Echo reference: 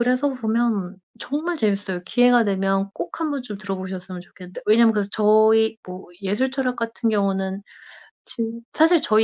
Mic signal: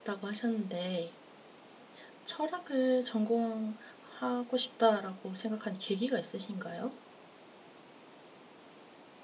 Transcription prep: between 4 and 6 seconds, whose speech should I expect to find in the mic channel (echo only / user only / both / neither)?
user only